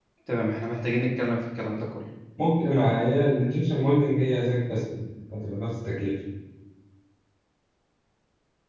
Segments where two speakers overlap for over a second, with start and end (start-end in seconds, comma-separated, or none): none